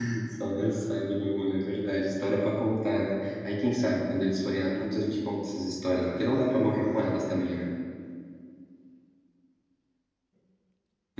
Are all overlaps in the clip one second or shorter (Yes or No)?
No